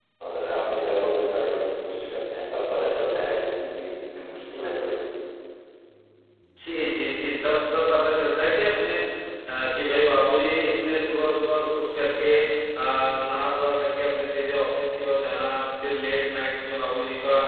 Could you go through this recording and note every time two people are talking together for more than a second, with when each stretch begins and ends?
none

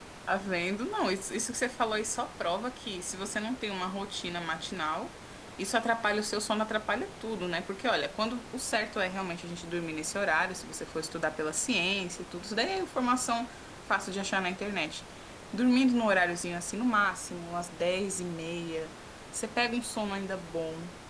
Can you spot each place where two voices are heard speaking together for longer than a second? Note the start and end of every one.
none

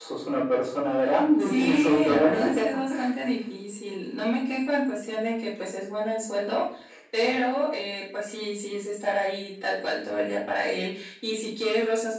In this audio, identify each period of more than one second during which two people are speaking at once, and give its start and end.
1.4-2.7

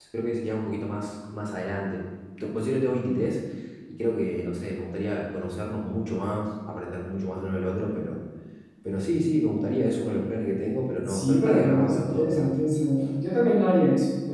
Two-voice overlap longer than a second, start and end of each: 11.1-12.4

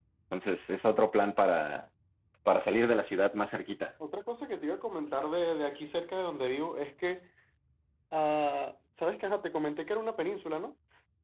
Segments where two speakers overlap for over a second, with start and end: none

